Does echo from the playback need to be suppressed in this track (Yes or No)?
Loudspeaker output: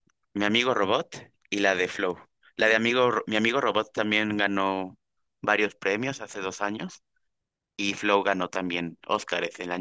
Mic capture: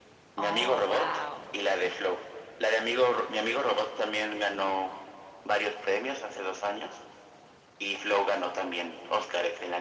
Yes